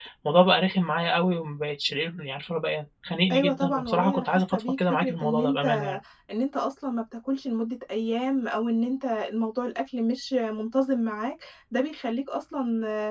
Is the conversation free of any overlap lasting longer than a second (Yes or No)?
No